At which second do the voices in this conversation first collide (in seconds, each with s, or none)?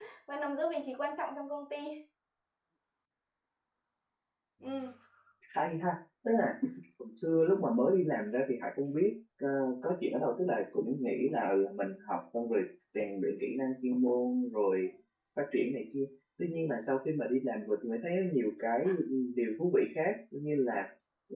none